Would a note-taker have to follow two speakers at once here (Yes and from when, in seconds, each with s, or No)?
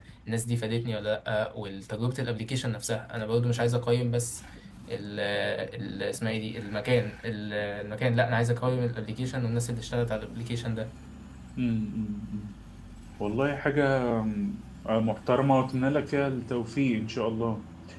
No